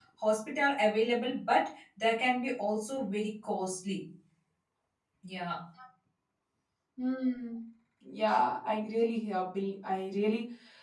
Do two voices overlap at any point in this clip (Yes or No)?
No